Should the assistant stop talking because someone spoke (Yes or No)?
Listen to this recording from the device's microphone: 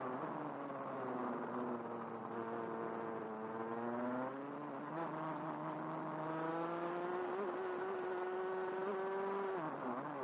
No